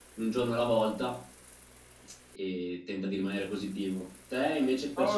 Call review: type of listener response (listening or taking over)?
taking over